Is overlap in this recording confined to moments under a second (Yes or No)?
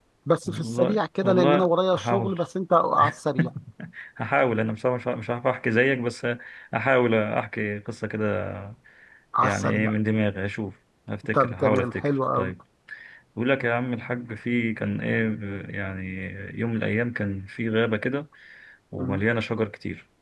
No